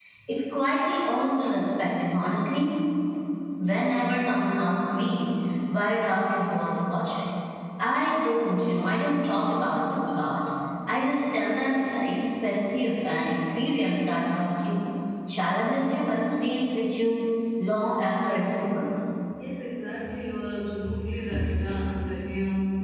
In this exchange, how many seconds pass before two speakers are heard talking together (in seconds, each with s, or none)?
none